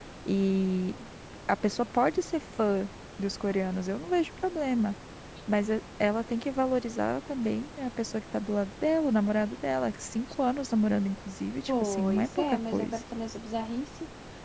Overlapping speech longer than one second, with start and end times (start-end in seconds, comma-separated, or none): 11.7-13.0